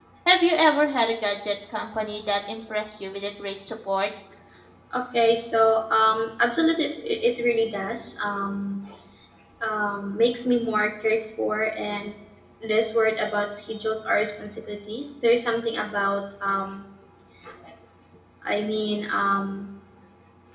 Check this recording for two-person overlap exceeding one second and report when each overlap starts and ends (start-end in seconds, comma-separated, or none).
none